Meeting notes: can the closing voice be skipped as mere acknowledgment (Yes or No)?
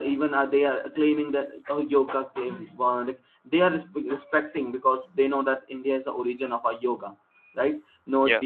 Yes